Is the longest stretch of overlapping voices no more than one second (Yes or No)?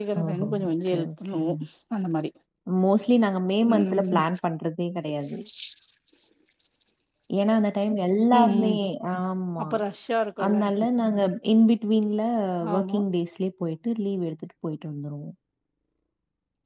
No